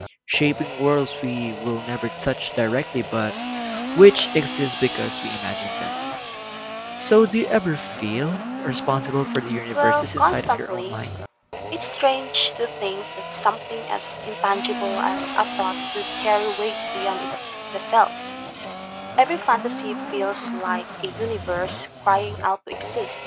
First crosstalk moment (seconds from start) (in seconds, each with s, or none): 9.8 s